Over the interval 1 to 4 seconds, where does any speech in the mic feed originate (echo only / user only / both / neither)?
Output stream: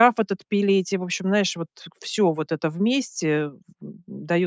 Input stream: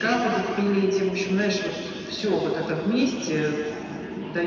echo only